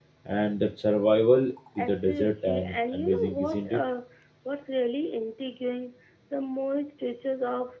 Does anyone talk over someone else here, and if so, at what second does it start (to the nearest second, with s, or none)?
2 s